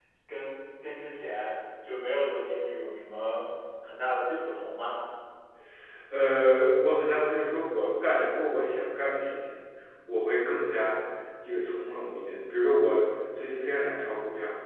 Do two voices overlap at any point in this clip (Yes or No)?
No